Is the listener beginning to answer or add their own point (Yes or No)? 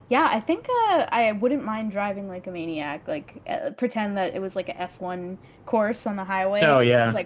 No